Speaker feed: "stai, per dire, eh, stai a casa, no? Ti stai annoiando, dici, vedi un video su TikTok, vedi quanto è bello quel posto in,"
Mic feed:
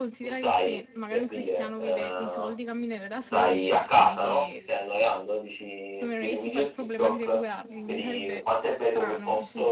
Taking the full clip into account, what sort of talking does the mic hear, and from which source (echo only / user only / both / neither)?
both